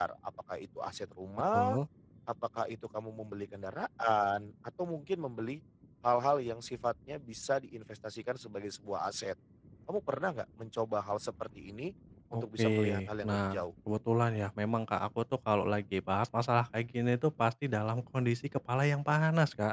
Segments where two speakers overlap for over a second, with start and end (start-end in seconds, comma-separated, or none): 12.3-13.6